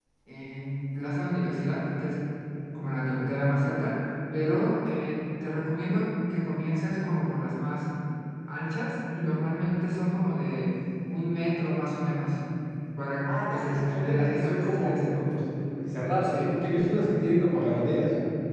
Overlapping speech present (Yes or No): Yes